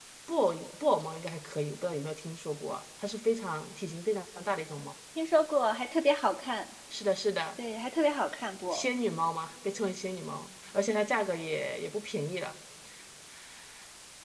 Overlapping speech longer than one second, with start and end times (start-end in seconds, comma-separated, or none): none